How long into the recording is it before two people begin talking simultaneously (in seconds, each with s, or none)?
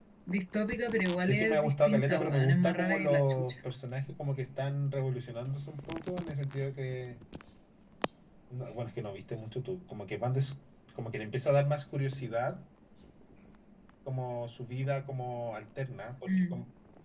1.3 s